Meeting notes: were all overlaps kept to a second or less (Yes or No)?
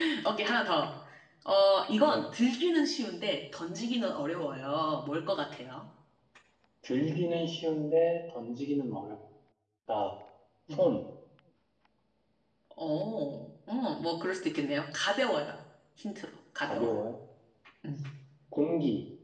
Yes